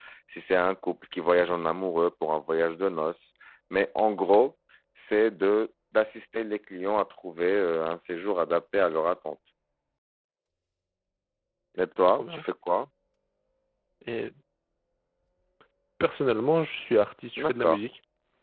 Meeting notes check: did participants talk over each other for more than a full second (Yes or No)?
No